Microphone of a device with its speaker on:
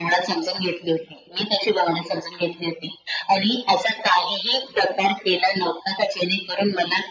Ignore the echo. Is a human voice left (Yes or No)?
No